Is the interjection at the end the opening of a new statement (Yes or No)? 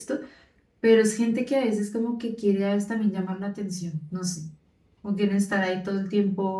No